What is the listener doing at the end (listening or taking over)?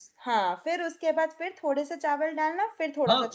taking over